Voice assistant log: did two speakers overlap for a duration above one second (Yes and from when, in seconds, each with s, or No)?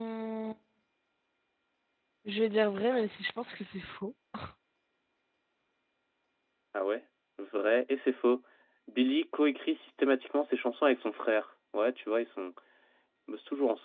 No